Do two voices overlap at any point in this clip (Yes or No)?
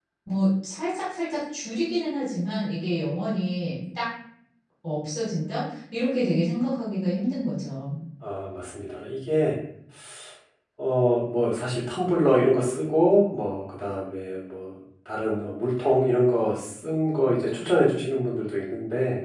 No